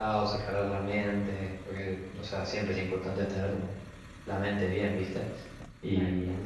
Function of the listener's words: listening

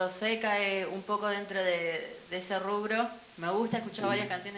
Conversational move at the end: listening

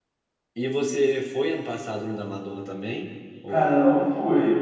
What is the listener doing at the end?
taking over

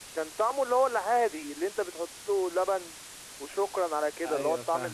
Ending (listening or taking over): listening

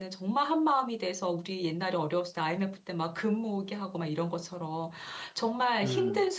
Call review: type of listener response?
listening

